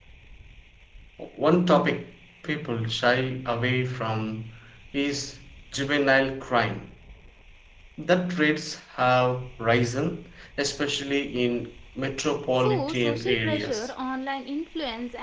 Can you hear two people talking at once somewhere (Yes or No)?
Yes